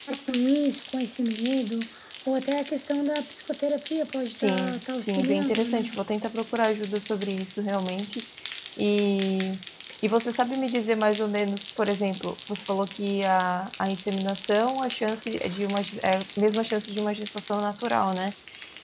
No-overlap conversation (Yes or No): No